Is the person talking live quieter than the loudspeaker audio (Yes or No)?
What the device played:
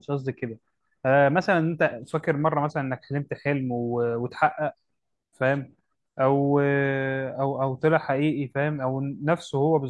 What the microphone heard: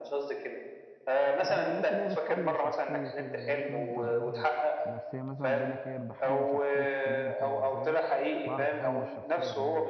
Yes